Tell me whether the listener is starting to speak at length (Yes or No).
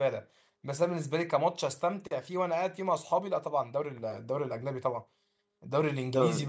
No